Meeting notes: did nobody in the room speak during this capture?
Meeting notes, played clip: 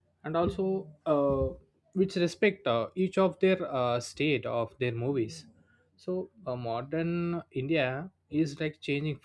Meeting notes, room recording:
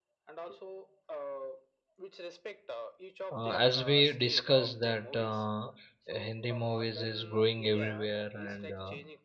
No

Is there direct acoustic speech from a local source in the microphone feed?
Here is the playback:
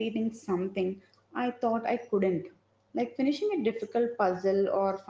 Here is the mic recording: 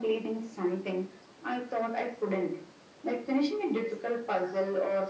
No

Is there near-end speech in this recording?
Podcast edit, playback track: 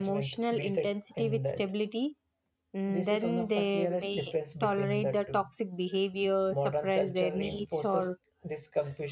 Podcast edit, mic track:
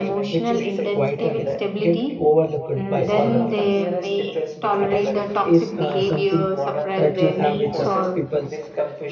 Yes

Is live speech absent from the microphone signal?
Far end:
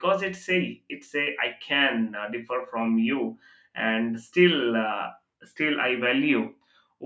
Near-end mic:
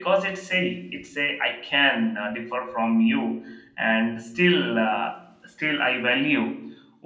Yes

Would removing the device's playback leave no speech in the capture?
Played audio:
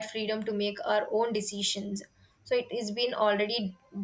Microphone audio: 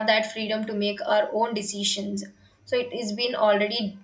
Yes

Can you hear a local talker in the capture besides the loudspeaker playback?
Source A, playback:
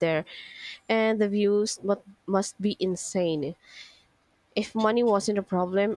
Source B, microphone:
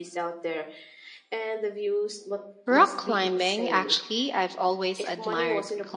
Yes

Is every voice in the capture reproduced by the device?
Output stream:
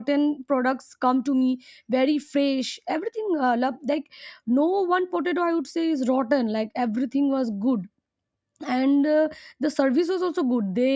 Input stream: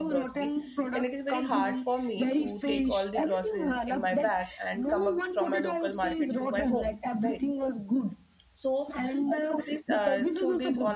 No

